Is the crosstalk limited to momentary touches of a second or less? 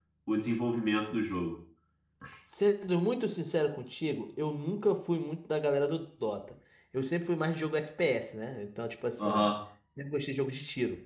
Yes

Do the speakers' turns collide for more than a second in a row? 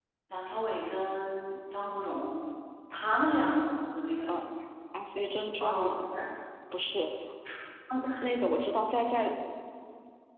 No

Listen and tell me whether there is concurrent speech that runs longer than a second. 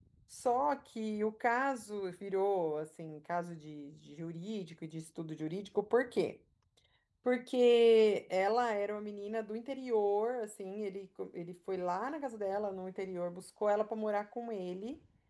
No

